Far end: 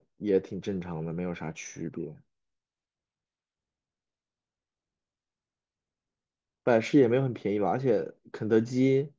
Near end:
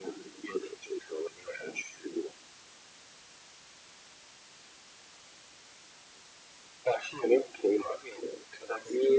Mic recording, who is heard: echo only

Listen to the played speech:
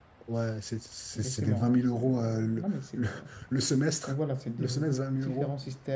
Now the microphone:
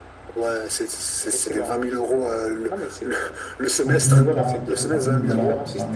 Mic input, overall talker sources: both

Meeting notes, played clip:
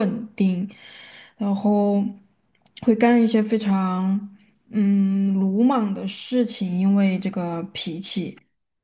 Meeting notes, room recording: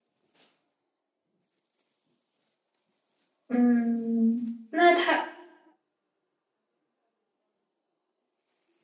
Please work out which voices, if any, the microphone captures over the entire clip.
user only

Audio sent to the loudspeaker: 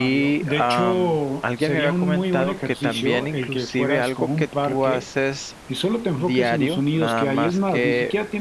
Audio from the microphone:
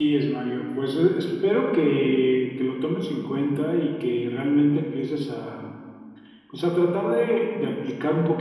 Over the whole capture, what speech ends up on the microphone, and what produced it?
user only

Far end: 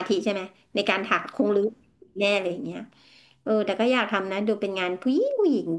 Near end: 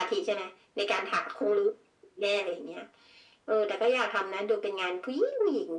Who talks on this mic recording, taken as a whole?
echo only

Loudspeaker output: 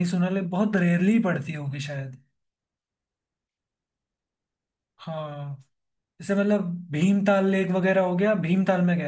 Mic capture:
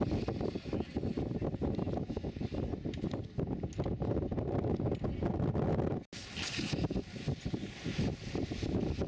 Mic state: neither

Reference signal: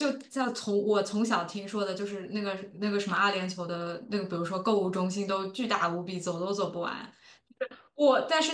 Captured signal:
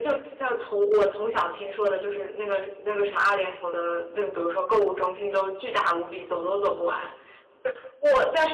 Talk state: echo only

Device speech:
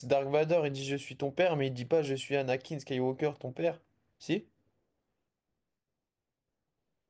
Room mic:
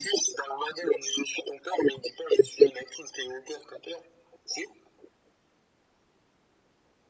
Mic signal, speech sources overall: echo only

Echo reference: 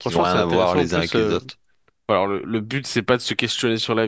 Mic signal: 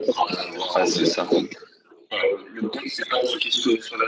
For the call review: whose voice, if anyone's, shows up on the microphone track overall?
both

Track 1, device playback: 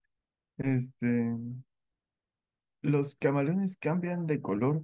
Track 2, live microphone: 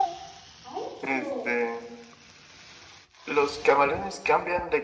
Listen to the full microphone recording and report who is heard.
both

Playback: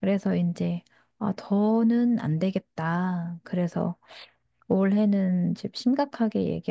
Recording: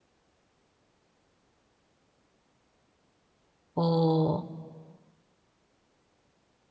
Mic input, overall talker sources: user only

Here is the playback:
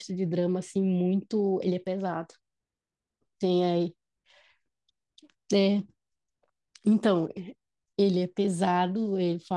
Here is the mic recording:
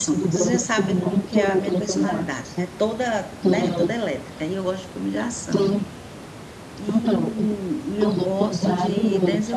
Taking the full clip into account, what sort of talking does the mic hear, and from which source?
both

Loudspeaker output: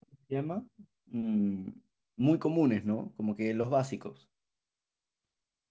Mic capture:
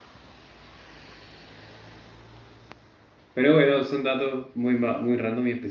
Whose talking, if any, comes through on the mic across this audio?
user only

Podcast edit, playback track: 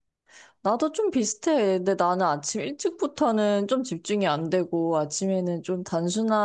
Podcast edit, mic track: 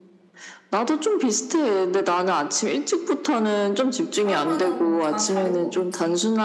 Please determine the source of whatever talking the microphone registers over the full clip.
both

